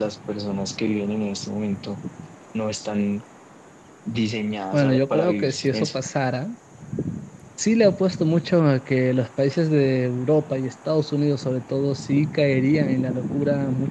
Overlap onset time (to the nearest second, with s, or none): 5 s